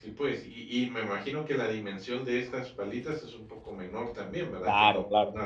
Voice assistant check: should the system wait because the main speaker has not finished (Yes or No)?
No